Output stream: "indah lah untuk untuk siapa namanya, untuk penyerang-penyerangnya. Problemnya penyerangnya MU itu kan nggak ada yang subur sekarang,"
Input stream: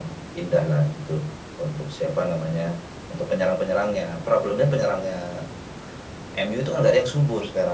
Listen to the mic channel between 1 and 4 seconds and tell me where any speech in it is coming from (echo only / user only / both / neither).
echo only